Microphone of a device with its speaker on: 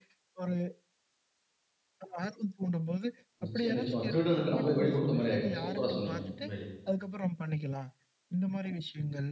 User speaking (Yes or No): Yes